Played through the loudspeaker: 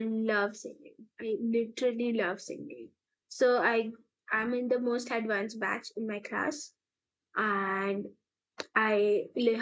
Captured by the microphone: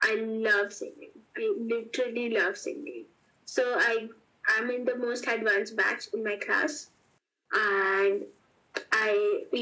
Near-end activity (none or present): none